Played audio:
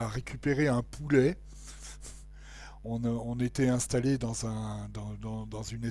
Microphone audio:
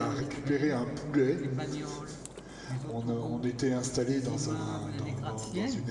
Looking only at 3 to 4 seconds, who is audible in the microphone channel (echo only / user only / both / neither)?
both